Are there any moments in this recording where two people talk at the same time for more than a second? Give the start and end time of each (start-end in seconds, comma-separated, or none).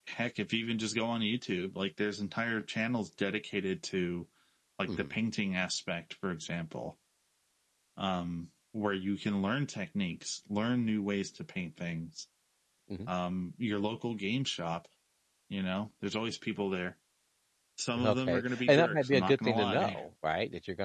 18.0-20.0